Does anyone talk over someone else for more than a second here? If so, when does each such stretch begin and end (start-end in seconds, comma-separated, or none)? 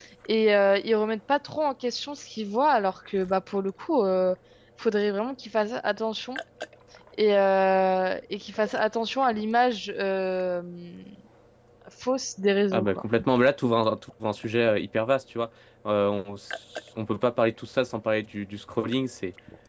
none